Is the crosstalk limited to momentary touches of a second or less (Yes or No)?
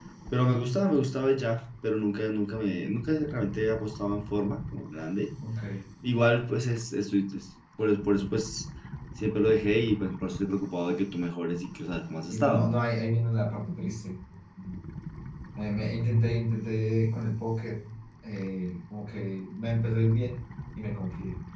Yes